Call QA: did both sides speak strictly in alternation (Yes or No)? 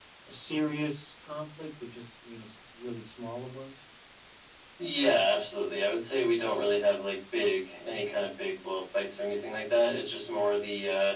Yes